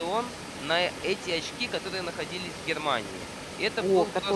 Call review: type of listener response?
taking over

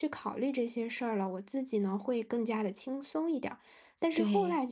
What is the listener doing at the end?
listening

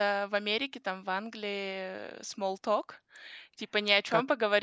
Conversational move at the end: listening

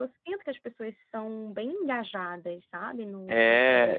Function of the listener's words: taking over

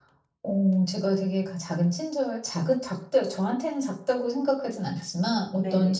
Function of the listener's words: listening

